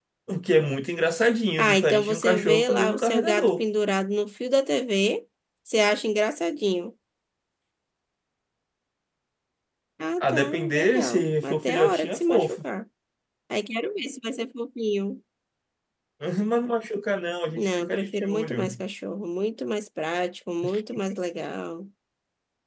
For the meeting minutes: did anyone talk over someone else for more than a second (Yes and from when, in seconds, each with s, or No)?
Yes, from 1.6 s